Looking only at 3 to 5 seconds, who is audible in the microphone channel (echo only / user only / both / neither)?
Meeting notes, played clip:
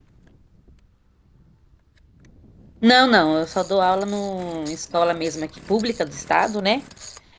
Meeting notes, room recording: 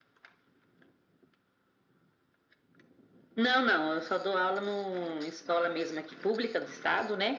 echo only